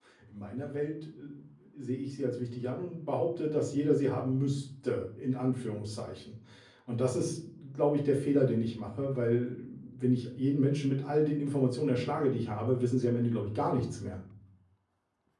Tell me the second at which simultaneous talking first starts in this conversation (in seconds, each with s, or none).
none